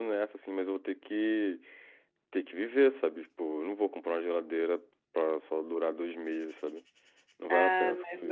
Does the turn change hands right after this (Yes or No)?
Yes